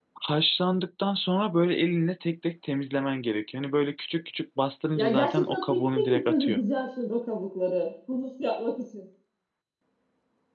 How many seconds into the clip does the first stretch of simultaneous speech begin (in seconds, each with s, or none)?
5.0 s